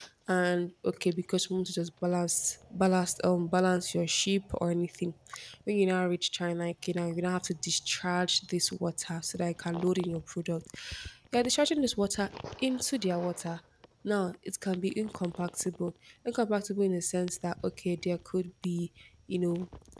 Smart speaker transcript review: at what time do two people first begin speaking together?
none

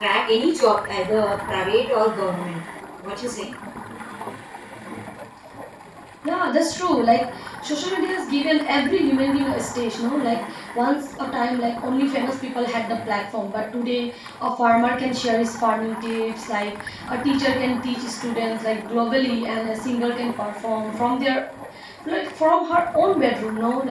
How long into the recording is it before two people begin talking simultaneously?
none

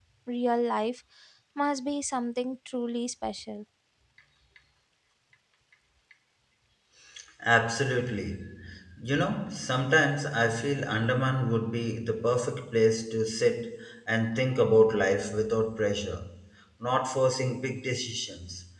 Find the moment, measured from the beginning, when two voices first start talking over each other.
none

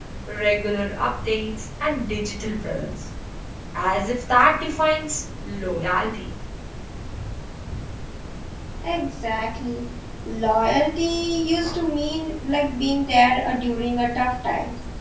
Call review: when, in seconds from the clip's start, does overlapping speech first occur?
none

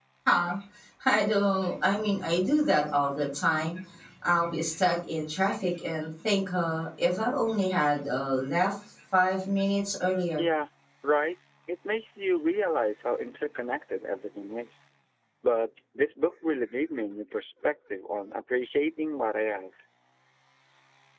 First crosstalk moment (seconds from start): none

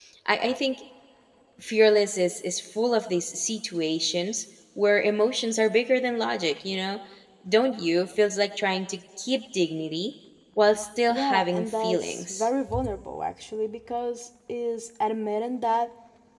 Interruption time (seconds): 11 s

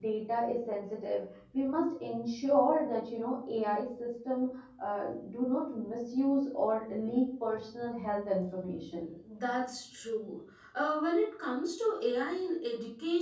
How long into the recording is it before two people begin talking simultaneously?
none

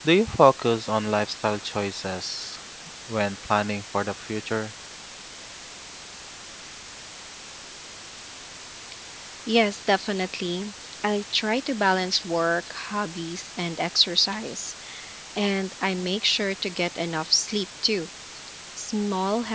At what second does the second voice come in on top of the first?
none

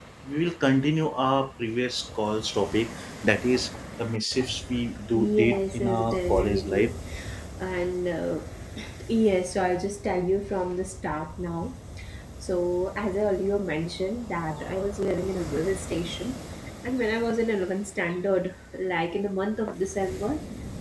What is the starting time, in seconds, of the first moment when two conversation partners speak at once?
5 s

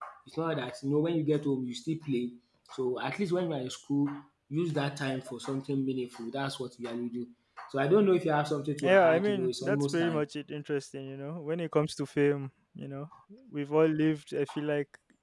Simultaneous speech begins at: 9 s

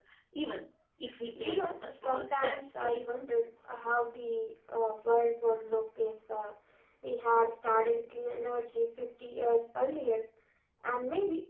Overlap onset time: 1 s

